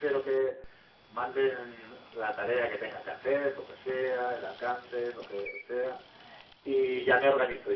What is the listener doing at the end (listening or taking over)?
listening